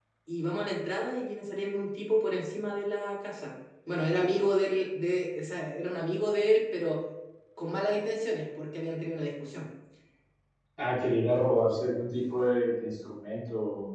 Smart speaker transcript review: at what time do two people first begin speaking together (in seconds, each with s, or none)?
none